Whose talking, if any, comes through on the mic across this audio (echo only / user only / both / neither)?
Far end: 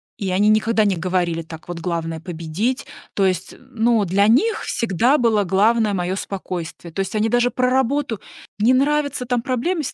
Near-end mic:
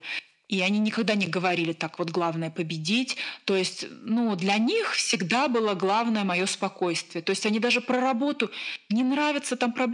echo only